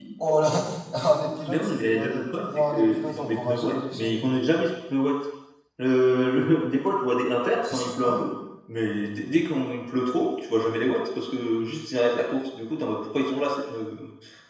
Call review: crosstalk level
present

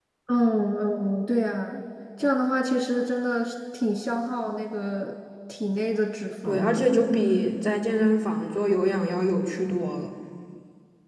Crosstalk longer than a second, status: none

